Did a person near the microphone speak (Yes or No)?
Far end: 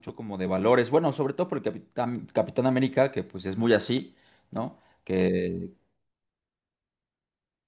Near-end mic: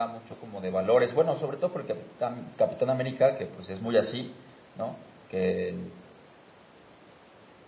No